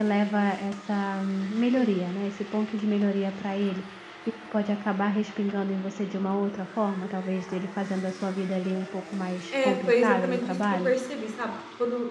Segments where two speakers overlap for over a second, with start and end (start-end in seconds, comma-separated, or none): 9.5-11.0